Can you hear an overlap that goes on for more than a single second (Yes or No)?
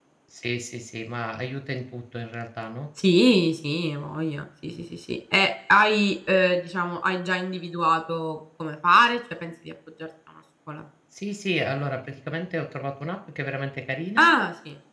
No